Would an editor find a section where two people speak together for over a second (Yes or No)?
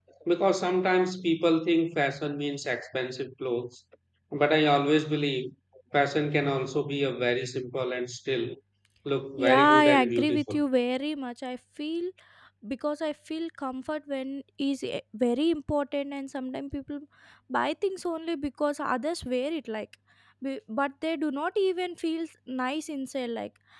Yes